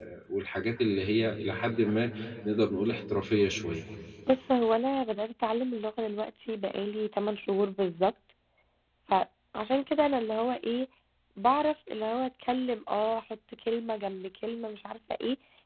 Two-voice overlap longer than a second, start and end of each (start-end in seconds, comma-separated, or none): none